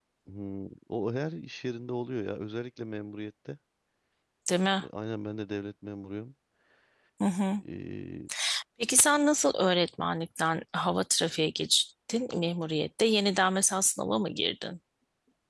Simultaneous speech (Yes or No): No